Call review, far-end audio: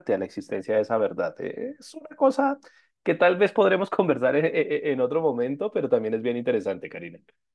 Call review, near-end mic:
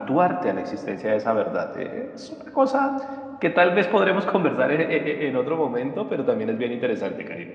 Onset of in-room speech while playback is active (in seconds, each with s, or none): none